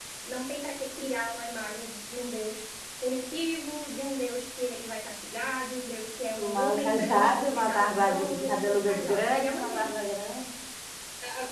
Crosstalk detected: Yes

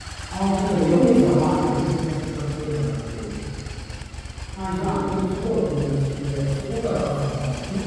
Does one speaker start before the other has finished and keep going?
Yes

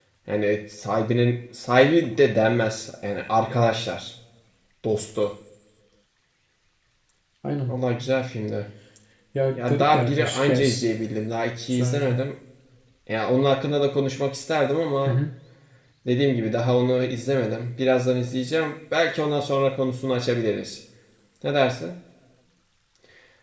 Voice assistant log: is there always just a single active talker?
No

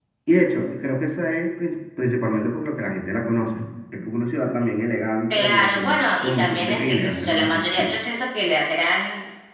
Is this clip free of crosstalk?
No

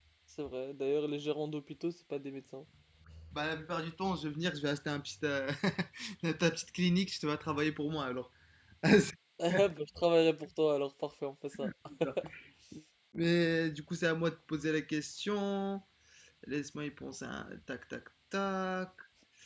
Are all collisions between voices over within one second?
Yes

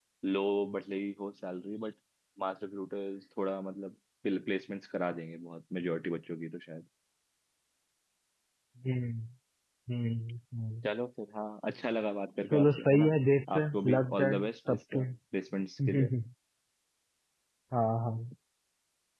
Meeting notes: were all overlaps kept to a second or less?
No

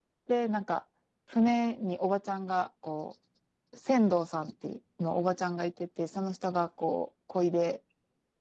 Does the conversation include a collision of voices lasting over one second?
No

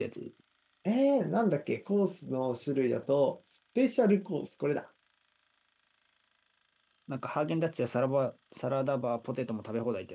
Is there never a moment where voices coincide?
Yes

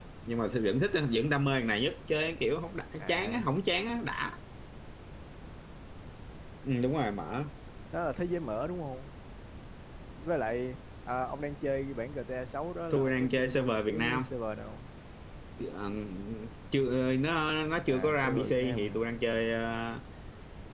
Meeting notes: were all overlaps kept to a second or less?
No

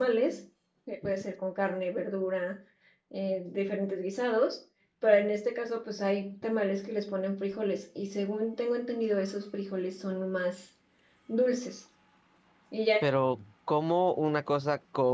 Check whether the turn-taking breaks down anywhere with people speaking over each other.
No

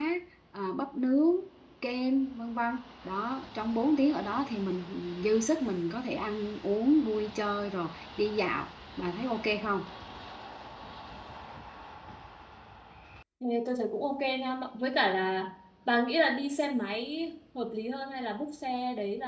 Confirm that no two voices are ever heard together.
Yes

